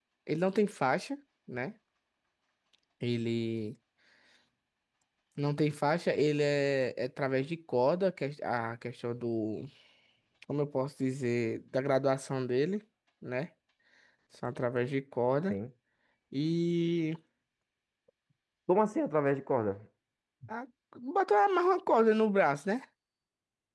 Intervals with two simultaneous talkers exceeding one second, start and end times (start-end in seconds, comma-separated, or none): none